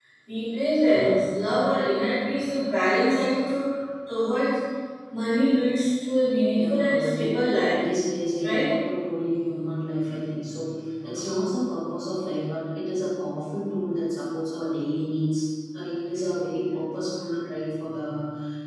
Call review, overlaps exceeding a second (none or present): present